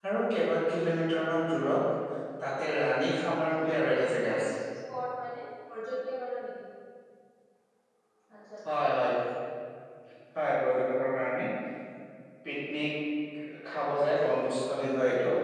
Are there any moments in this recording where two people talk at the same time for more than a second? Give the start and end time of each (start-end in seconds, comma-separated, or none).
3.4-4.6